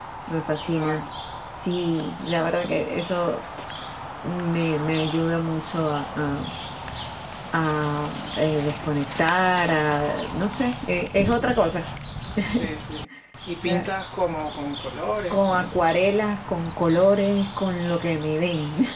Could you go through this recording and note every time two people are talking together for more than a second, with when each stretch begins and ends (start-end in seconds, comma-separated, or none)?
none